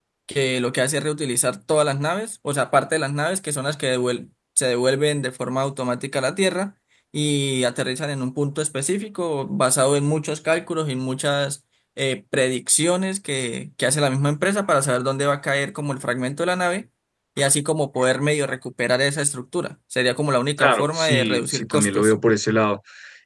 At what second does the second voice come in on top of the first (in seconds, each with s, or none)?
20.6 s